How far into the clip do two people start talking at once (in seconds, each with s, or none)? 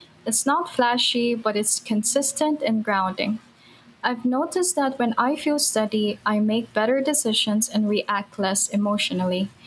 none